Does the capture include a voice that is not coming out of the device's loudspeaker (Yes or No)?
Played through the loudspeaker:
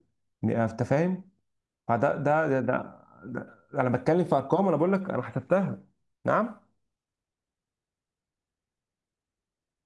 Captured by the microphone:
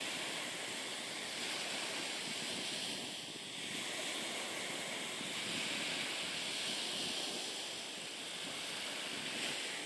No